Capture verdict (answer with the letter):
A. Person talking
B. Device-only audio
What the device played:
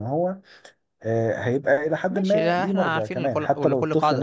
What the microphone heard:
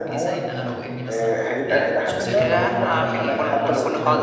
A